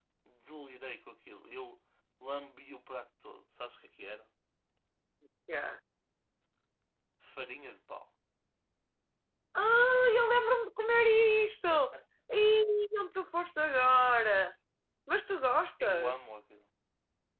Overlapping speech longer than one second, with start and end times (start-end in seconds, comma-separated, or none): none